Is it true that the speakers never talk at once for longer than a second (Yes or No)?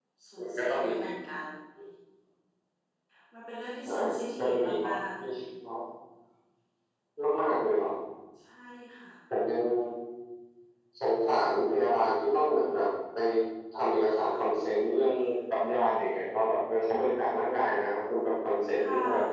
No